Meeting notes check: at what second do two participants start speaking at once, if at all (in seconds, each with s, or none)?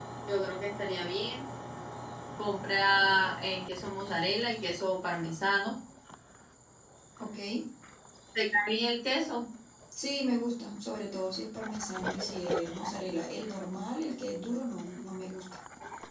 none